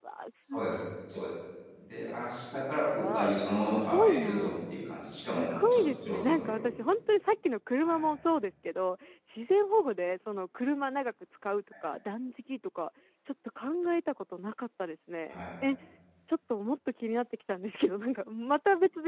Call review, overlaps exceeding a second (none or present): present